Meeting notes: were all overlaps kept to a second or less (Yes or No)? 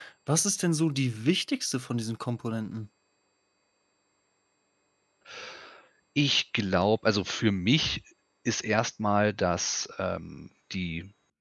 Yes